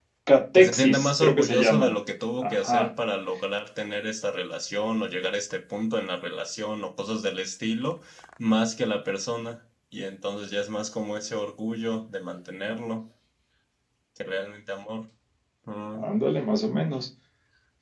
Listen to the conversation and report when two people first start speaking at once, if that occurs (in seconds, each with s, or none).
0.5 s